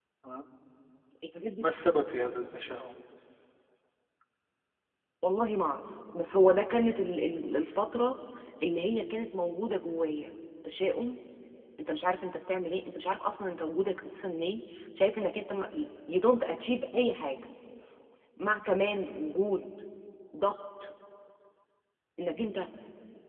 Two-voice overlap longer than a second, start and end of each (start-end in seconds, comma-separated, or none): none